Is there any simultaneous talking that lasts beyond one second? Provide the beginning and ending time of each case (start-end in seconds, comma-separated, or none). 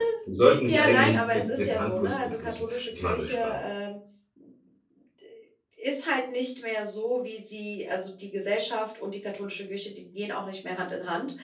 0.7-3.5